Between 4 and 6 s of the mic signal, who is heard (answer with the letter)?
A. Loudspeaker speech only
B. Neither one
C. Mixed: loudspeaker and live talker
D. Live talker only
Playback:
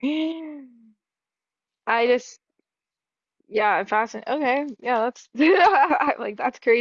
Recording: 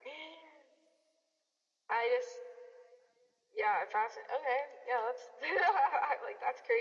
A